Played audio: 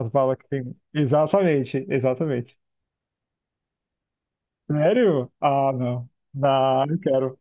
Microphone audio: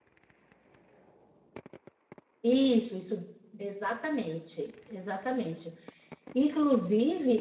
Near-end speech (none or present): present